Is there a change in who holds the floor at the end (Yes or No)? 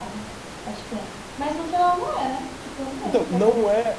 Yes